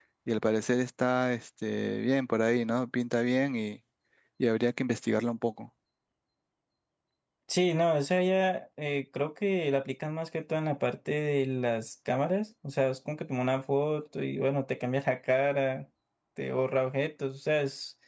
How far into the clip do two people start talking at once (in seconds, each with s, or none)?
none